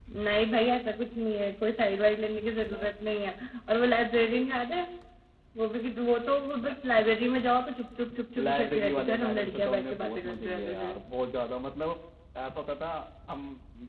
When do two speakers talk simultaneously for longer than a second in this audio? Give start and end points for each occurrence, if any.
8.4-10.9

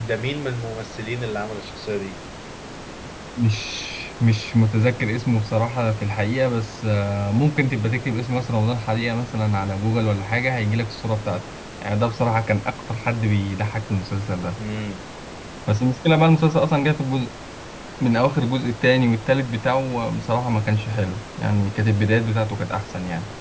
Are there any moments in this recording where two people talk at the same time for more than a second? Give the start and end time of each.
none

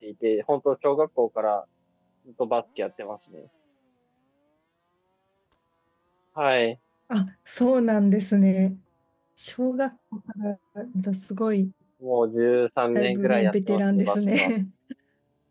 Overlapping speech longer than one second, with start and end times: 12.9-14.5

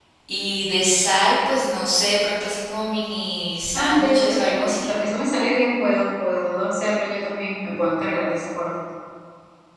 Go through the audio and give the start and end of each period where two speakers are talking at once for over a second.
3.7-4.9

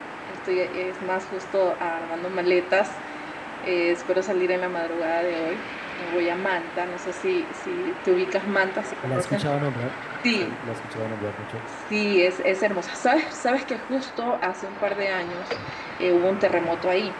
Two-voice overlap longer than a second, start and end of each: none

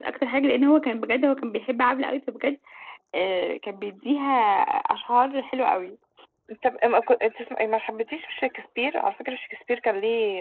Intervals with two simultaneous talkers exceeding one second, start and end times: none

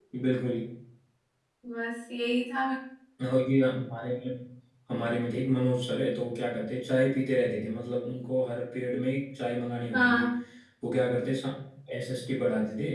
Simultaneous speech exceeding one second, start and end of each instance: none

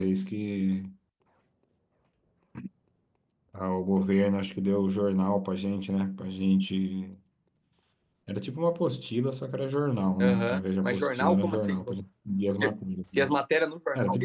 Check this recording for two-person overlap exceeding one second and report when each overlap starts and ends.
10.2-12.0

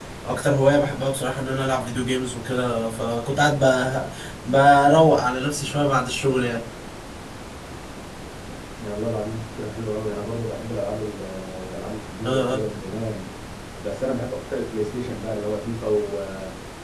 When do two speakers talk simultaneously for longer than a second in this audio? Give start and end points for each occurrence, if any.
none

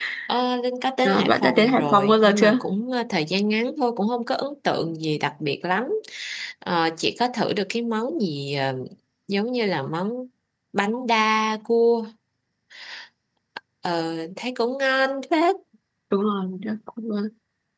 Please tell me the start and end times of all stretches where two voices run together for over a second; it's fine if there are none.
1.0-2.6

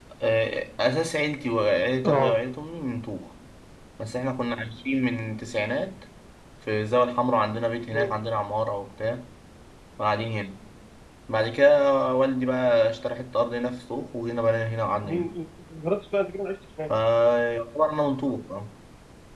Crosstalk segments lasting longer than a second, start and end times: none

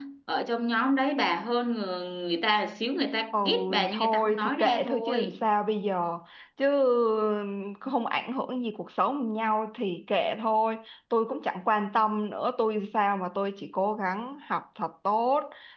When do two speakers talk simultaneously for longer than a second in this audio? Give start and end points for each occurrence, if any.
3.3-5.4

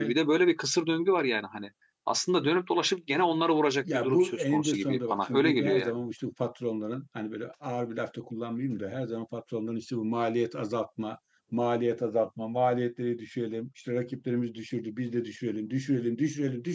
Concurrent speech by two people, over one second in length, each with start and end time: 3.8-6.0

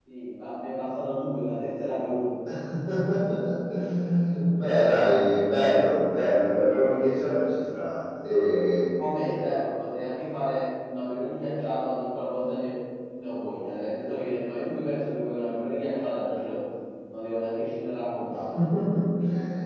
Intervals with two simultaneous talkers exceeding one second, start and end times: none

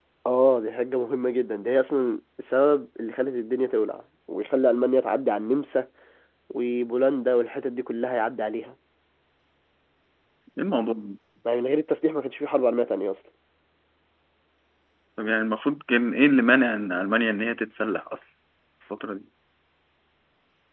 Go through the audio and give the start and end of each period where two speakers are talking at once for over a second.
none

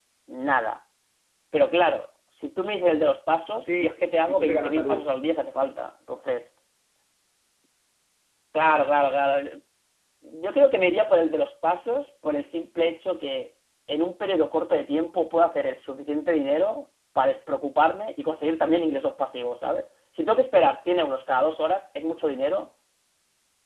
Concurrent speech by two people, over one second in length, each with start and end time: 3.8-5.1

